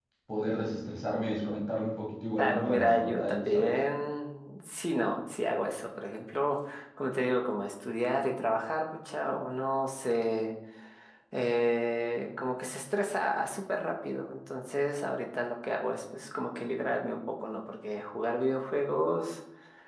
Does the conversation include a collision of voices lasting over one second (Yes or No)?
Yes